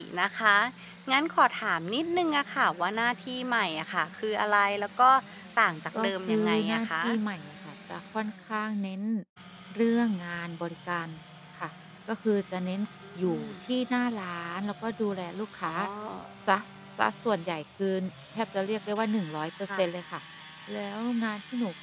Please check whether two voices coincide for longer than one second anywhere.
Yes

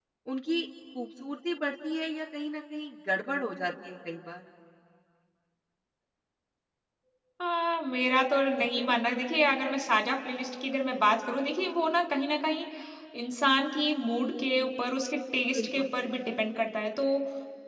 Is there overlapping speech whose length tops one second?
No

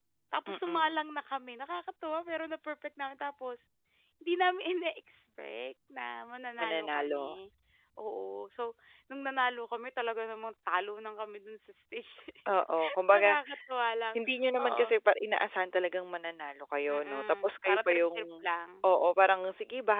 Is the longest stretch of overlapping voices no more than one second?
No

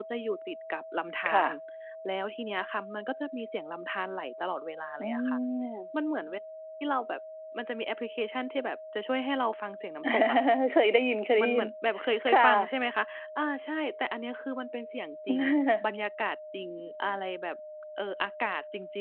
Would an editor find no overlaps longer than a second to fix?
Yes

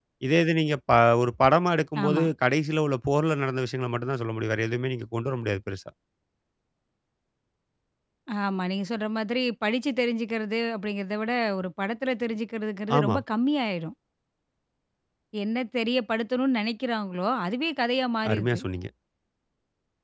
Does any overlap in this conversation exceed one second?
No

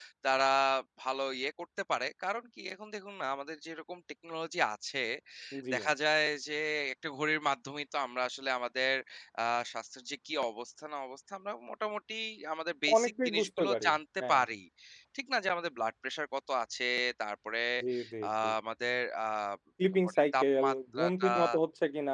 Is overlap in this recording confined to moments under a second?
No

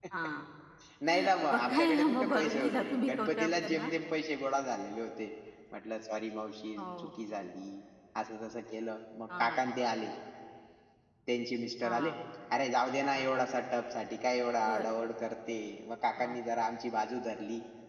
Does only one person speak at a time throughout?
No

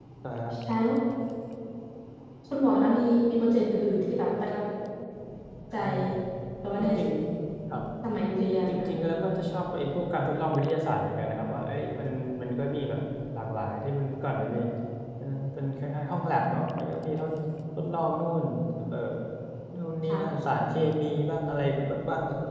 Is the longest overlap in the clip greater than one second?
No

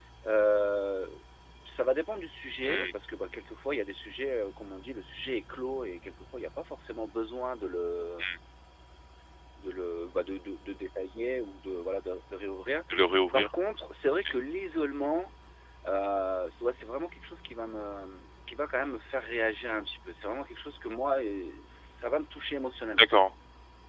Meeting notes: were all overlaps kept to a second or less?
Yes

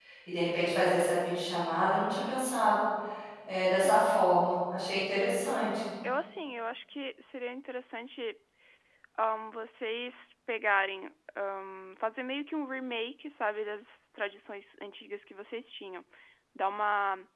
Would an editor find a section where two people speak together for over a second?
No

